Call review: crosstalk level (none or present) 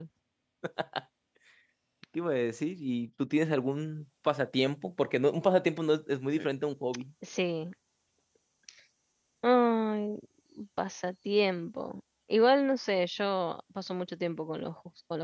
none